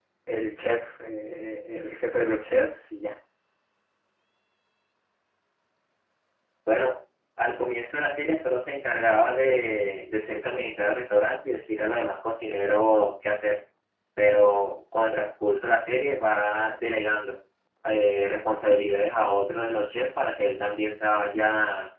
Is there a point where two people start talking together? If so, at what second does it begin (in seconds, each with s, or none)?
none